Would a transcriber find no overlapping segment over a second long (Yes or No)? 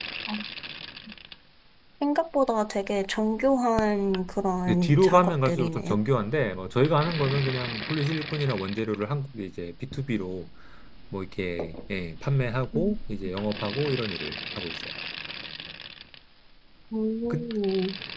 No